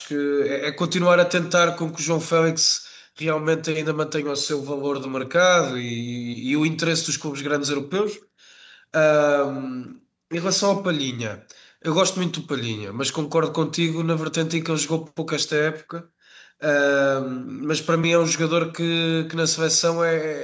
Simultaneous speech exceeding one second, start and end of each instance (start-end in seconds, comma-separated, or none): none